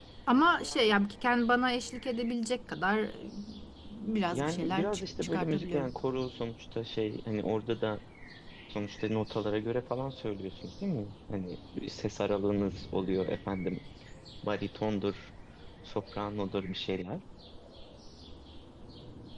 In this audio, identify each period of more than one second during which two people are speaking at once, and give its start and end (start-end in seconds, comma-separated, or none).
4.3-5.9